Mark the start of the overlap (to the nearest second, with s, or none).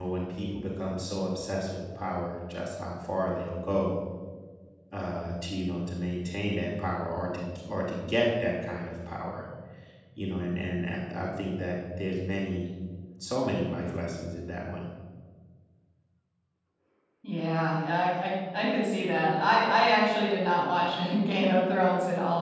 none